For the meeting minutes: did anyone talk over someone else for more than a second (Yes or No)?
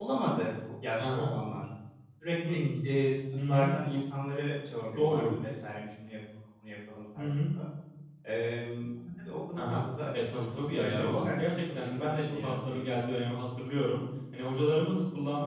Yes